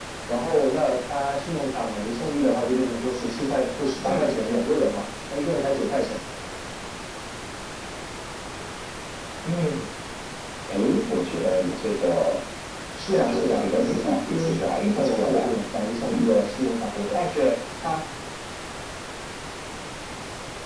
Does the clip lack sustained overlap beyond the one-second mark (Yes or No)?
No